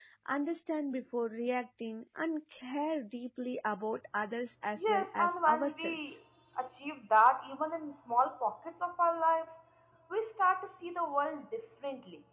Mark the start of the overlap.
4.8 s

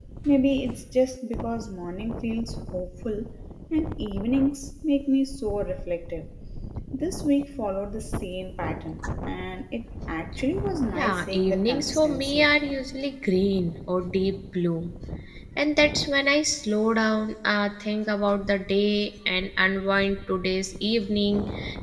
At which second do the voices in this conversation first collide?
10.9 s

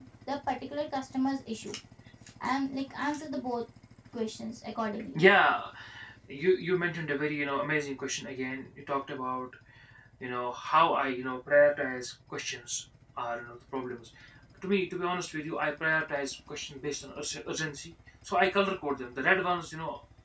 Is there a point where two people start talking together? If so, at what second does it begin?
none

